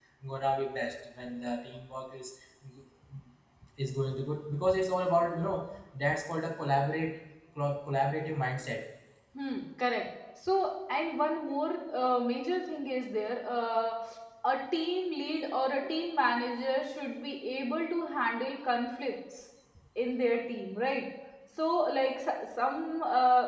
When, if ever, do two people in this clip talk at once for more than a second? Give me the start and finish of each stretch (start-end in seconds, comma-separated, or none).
none